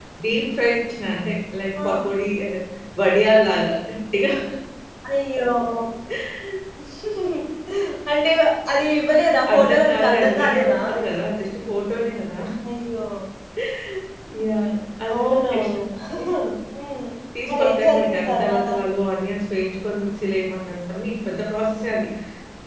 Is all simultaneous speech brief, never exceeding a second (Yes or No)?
No